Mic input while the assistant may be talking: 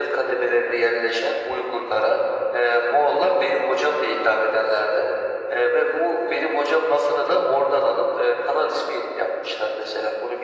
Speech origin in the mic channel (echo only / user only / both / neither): echo only